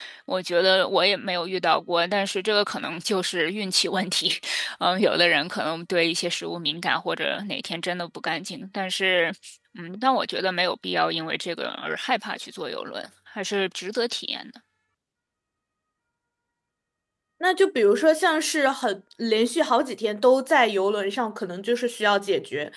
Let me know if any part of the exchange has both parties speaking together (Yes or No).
No